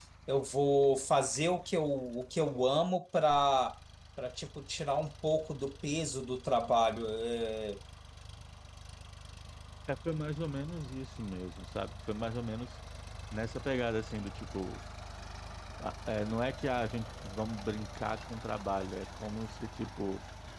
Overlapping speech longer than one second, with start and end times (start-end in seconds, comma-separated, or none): none